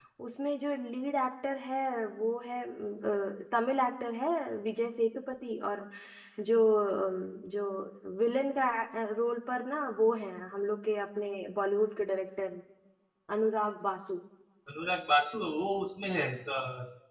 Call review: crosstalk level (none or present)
none